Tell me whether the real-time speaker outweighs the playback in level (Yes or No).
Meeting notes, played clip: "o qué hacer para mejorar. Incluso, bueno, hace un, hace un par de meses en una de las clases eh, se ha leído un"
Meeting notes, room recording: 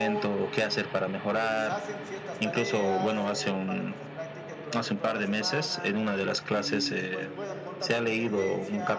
No